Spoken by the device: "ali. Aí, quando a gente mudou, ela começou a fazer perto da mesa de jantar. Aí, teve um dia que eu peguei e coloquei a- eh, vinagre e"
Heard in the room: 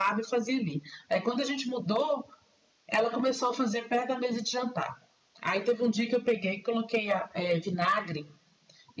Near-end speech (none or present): none